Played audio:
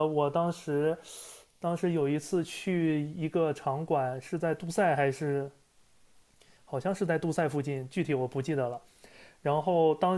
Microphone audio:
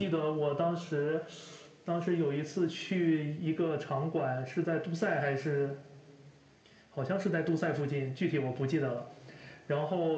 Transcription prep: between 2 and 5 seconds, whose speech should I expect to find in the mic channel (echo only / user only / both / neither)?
echo only